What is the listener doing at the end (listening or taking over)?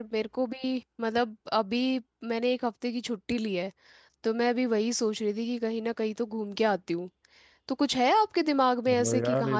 taking over